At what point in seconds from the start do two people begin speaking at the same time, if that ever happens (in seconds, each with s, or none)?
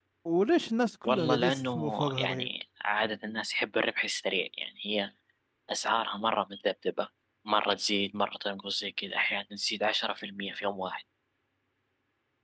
1.0 s